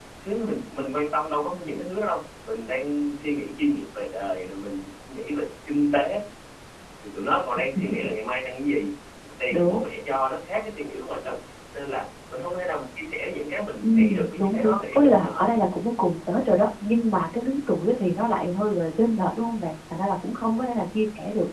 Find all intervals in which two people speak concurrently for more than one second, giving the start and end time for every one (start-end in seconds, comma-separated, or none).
13.8-15.5